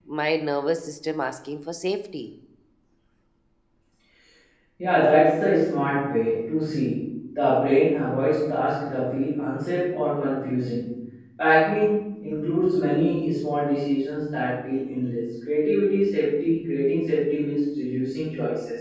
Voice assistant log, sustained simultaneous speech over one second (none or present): none